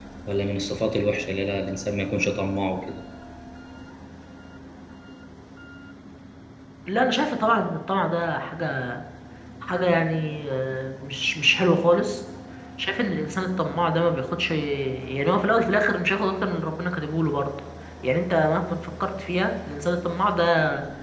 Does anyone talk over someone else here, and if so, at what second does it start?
none

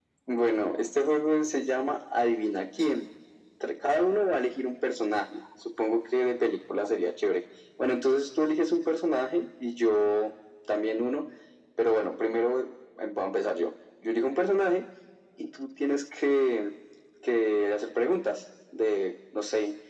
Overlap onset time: none

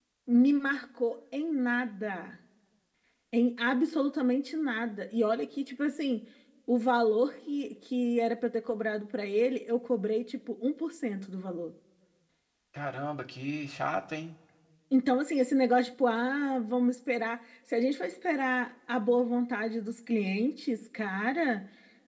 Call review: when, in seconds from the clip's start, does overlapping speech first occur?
none

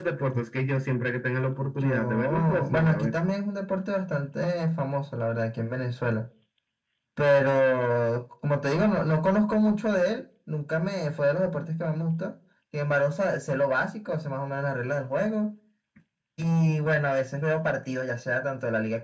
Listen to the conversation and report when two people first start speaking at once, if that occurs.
1.8 s

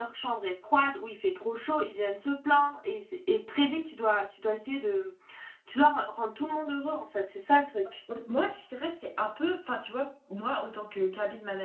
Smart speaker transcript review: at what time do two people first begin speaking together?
none

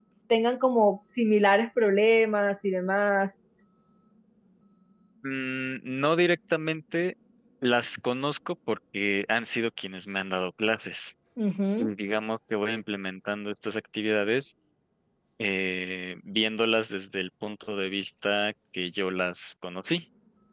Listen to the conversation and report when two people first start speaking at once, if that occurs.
none

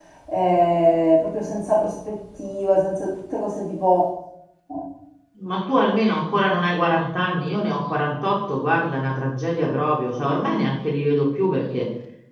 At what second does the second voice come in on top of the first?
none

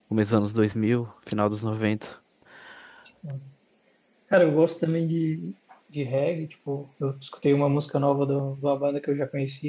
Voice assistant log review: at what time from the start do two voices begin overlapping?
none

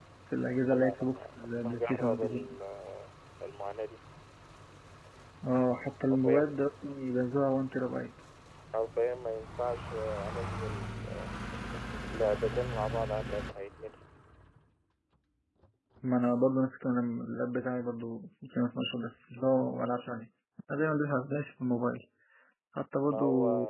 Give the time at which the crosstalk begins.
0.7 s

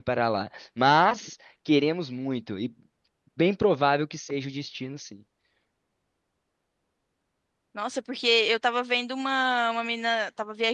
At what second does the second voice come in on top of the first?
none

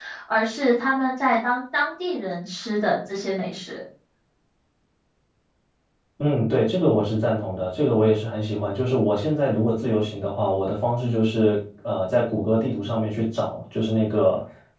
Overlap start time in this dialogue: none

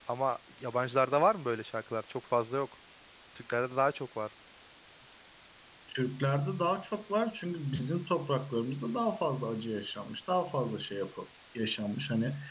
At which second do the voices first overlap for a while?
none

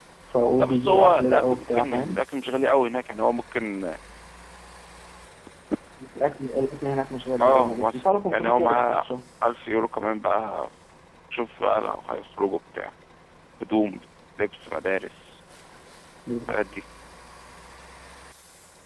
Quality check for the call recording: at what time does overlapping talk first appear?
0.6 s

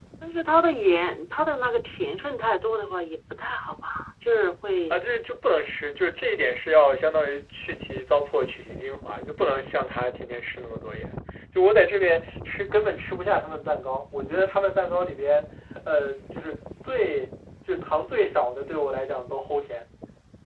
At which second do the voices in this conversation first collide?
none

